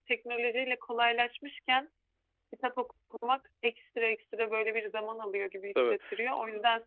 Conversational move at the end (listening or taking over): listening